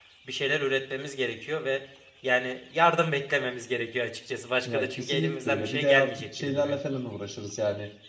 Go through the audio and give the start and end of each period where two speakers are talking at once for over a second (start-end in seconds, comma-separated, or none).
4.7-6.8